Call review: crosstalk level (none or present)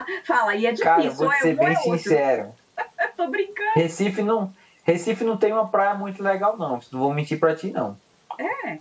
present